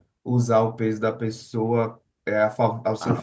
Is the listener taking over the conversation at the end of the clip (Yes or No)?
Yes